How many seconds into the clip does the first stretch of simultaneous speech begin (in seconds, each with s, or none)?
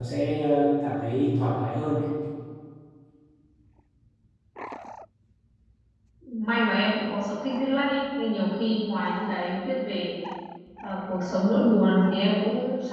none